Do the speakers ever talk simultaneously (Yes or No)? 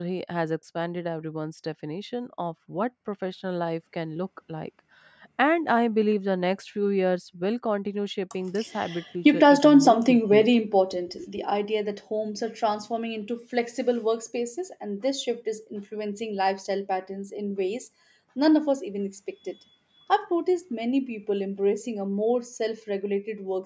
Yes